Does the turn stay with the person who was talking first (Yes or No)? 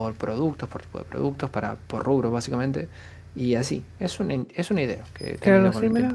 No